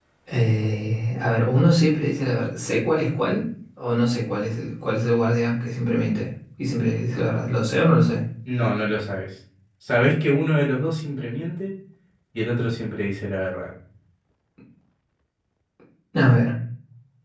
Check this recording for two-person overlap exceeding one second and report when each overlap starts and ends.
none

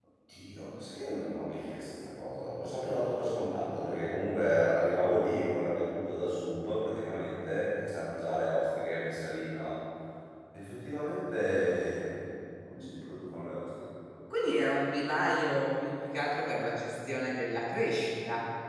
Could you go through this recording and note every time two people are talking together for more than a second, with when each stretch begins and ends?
none

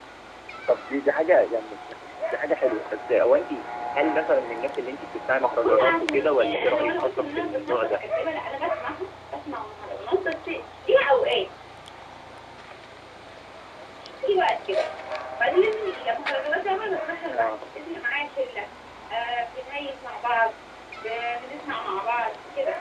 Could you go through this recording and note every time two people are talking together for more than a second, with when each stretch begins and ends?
5.6-8.0

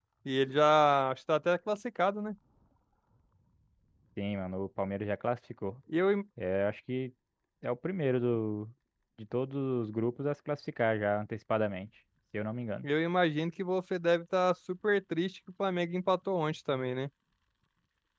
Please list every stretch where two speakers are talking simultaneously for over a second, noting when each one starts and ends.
none

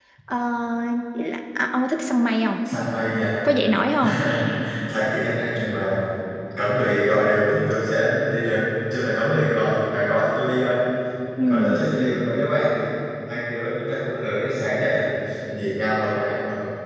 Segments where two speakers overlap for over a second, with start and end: none

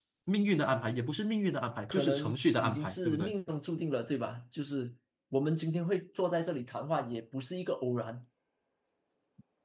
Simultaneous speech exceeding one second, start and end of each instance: 1.9-3.3

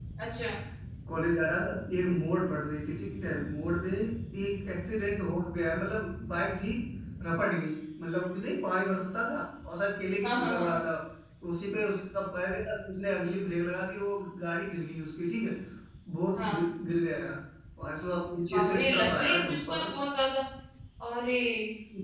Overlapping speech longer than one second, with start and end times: 18.5-19.9

